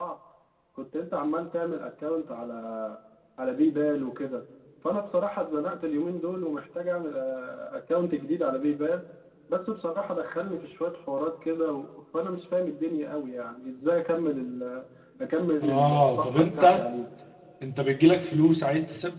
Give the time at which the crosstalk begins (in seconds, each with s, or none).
15.6 s